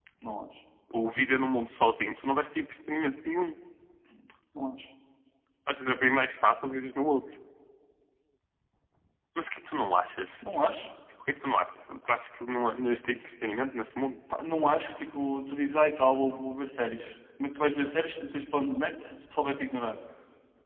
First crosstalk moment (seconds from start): none

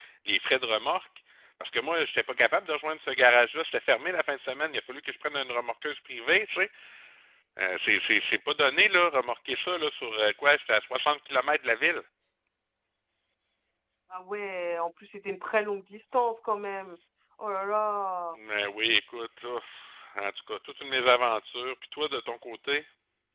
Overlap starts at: none

